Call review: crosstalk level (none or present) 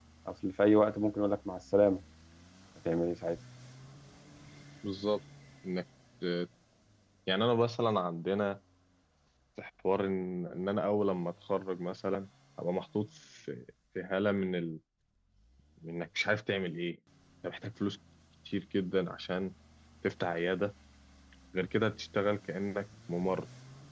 none